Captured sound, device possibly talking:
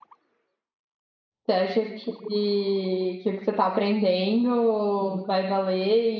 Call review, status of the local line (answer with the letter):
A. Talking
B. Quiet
A